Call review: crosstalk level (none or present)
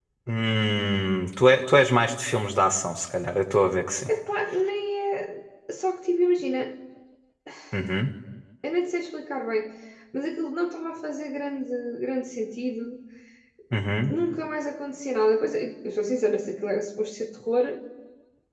none